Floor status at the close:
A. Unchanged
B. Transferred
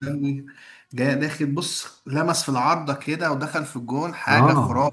B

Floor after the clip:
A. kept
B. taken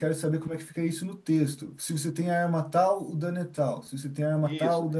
B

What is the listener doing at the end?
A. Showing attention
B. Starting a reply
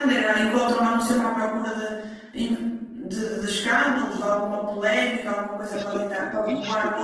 B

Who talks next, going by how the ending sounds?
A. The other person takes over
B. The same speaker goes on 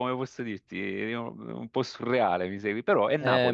A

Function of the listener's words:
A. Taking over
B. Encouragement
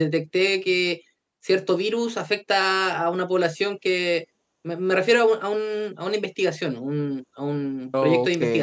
B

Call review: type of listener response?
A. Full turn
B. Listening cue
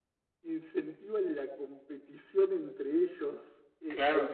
B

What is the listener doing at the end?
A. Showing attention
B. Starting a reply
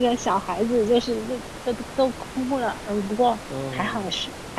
A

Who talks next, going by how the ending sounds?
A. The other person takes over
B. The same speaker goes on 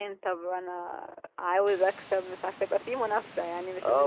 A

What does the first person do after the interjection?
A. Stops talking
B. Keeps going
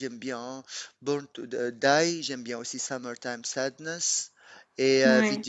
B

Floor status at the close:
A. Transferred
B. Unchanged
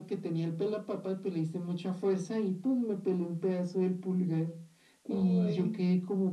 B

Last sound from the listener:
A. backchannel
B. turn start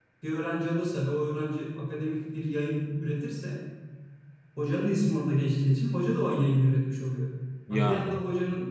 A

